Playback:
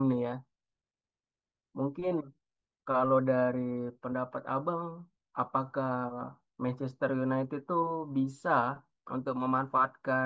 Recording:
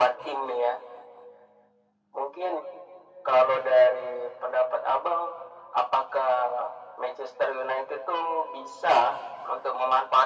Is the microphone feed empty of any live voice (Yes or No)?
Yes